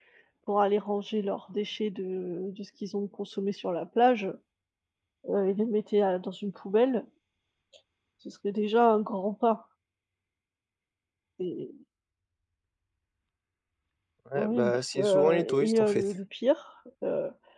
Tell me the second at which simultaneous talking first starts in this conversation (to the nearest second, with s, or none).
14 s